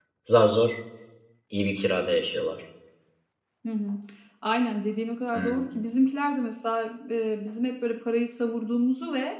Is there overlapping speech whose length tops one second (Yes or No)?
No